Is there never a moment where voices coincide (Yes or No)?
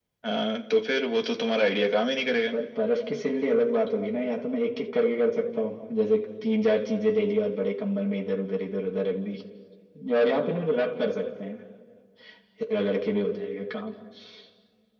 Yes